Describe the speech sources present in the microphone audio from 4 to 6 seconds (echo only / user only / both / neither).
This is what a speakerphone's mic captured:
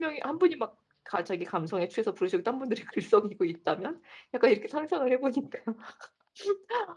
user only